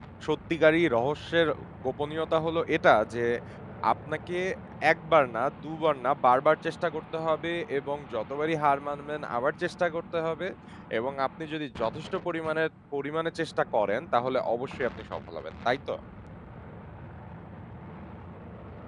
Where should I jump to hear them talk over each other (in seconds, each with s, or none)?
none